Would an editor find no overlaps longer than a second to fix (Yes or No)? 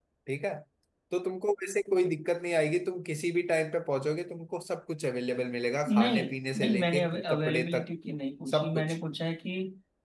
No